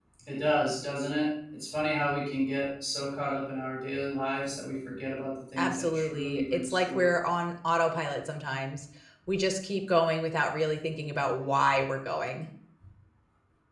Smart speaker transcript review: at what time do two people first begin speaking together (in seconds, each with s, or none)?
5.6 s